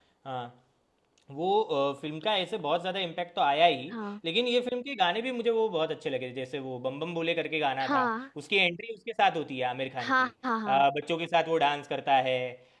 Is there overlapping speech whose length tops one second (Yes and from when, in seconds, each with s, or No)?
No